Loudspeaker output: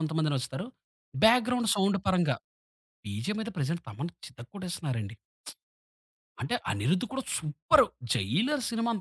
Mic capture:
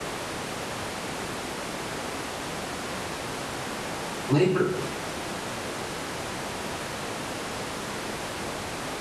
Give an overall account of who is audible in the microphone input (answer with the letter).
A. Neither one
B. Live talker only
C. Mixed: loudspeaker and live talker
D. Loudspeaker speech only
B